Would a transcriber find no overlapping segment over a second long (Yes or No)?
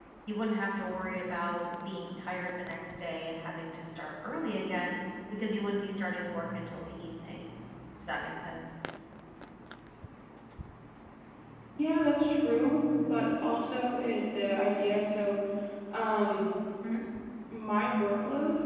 Yes